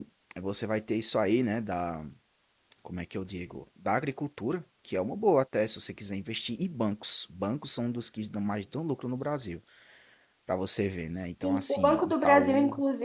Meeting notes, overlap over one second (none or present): present